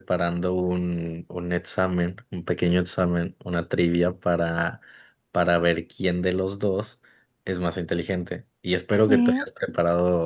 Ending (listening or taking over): listening